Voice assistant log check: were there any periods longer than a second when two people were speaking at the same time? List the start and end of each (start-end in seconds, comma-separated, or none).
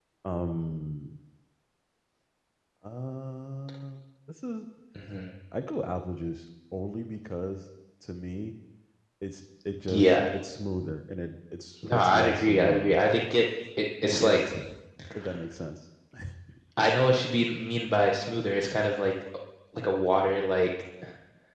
11.8-13.0